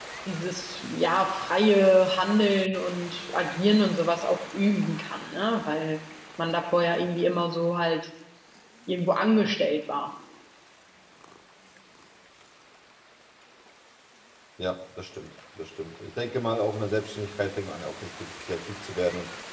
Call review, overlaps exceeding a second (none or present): none